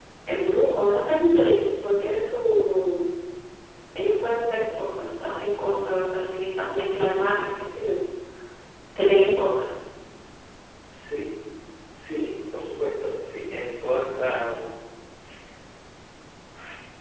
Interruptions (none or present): none